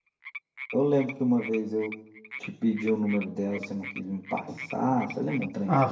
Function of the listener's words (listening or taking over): taking over